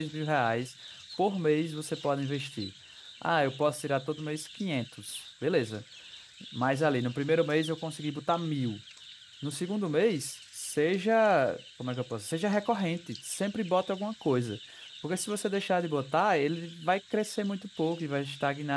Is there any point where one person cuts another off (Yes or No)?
No